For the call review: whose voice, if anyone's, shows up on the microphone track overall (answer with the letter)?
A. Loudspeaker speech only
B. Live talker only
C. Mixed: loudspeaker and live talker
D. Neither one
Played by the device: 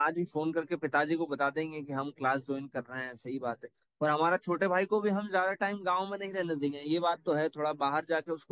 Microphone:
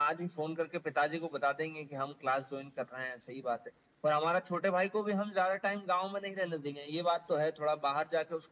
A